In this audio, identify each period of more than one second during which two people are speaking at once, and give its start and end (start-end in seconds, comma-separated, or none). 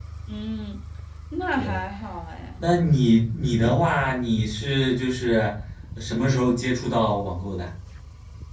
none